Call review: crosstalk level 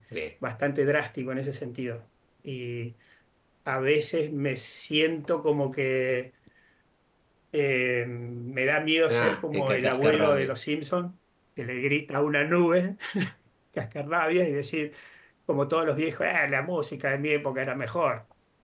present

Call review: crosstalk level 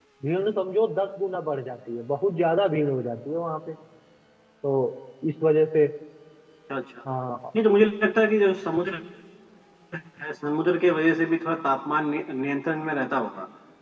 none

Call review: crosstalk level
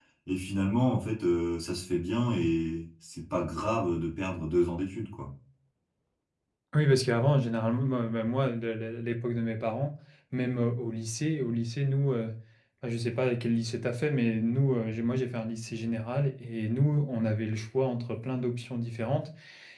none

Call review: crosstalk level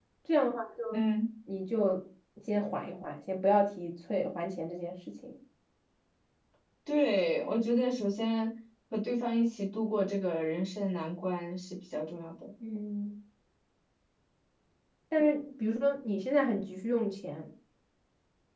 none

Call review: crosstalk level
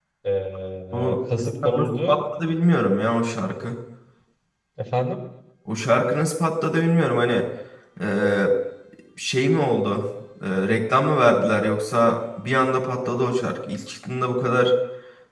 present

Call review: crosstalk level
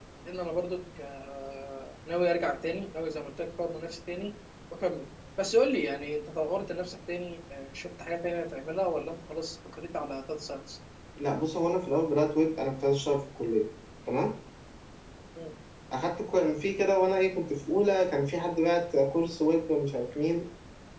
none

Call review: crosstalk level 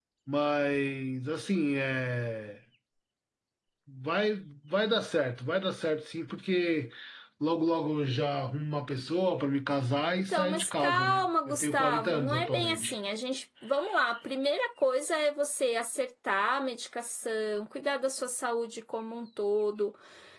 present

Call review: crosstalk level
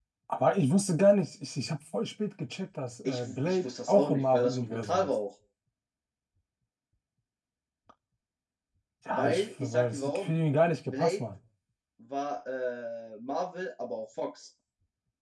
present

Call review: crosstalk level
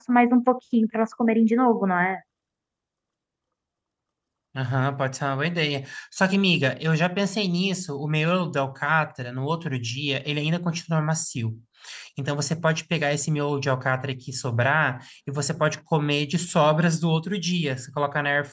none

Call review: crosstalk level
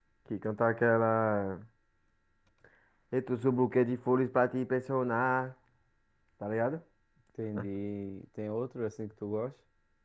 none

